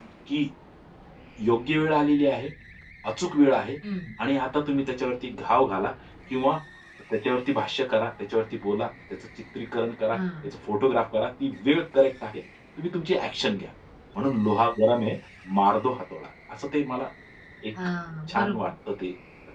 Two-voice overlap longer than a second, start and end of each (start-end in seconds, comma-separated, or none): none